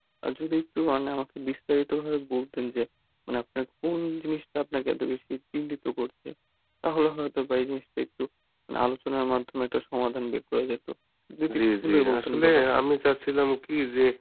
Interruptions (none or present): present